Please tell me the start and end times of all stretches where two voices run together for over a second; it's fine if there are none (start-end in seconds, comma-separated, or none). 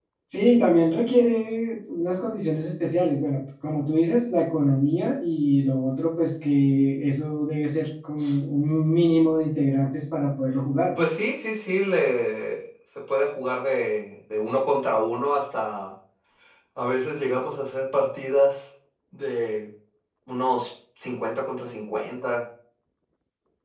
none